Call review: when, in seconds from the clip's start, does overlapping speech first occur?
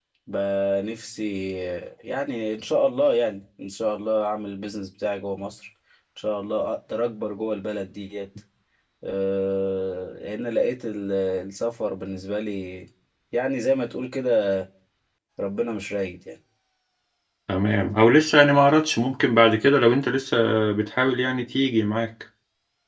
none

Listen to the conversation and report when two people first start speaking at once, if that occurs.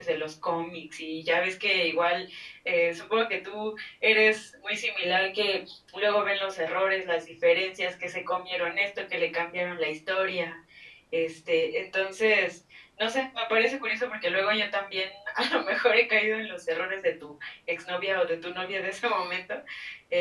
none

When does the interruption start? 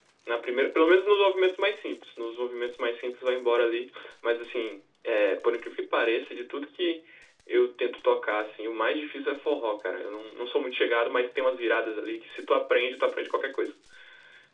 none

